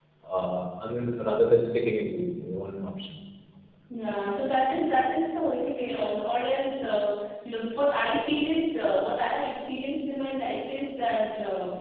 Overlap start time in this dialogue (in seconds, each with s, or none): none